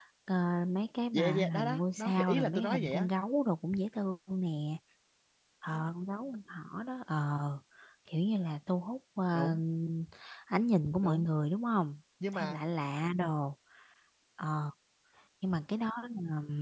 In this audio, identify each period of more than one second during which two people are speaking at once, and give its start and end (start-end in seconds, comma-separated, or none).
1.1-3.1